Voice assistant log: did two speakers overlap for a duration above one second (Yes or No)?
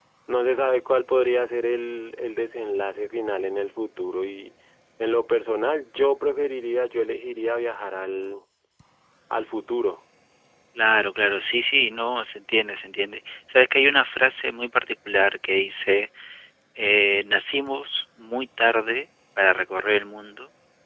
No